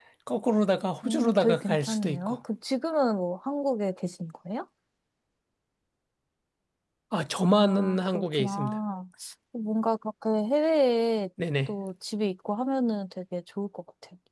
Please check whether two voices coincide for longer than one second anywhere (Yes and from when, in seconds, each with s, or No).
Yes, from 1.0 s